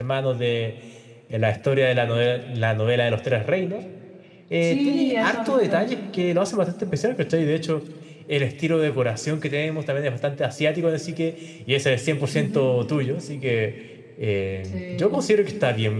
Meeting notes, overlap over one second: present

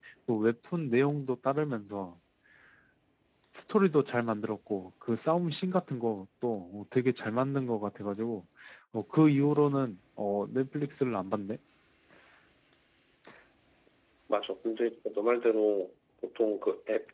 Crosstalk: none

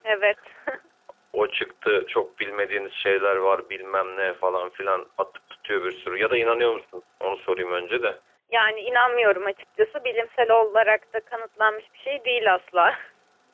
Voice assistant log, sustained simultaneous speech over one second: none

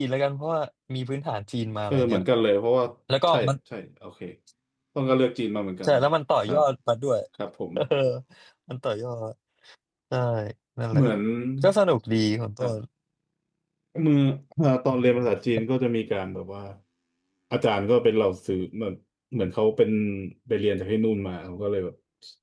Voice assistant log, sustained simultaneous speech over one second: none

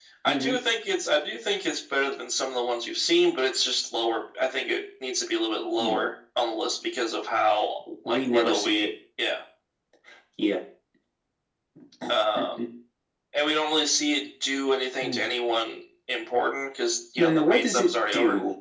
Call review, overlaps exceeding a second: present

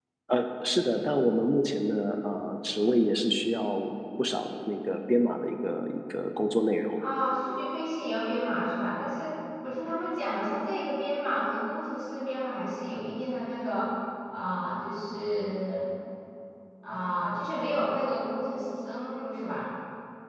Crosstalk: none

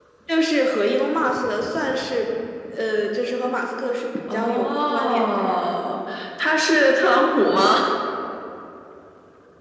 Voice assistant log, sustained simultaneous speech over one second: present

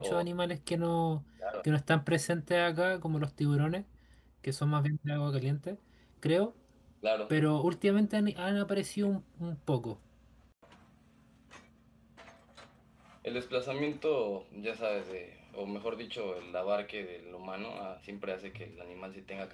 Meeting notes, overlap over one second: none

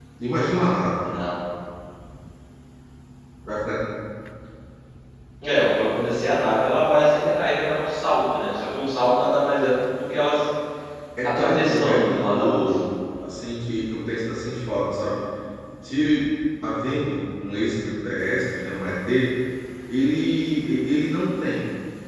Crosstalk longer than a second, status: present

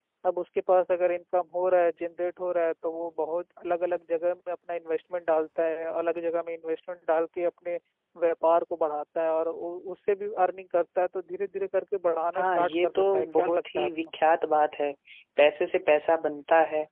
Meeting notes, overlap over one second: present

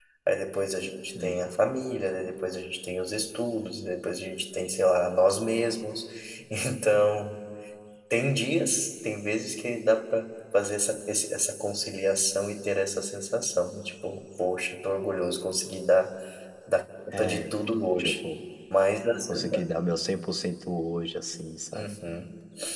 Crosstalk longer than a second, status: none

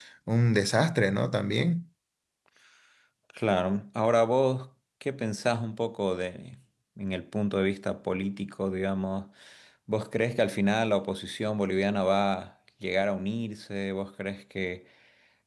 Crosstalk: none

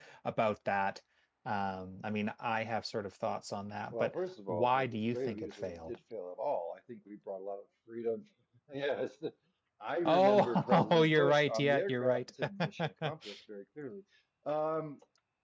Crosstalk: present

